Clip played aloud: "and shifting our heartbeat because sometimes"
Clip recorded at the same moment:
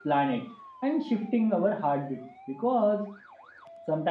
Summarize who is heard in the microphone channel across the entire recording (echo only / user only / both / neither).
echo only